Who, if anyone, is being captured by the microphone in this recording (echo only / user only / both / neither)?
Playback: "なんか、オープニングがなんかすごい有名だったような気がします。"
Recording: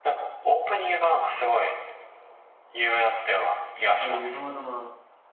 both